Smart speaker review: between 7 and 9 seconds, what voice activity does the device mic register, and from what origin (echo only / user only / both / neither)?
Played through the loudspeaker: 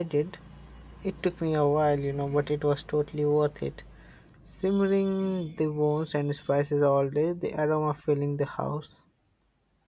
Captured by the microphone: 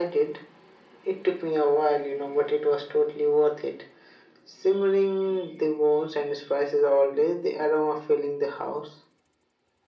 echo only